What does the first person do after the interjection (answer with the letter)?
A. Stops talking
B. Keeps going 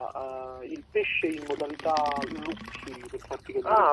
B